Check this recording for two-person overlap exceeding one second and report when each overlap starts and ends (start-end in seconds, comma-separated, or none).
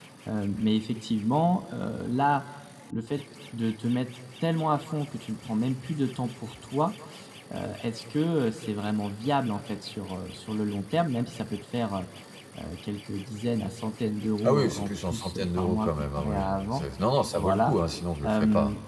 14.4-16.8